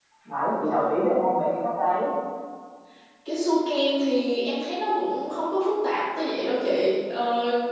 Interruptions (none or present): none